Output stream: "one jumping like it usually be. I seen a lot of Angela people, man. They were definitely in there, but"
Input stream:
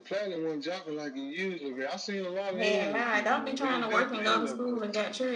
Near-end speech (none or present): present